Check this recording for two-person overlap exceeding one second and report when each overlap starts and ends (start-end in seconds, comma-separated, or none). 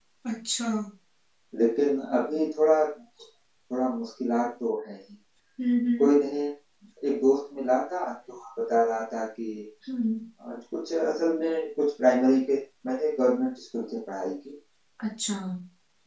none